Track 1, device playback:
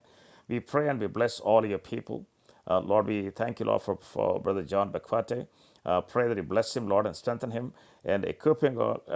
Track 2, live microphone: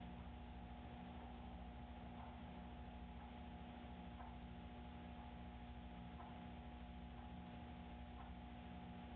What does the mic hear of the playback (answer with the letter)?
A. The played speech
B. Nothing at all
B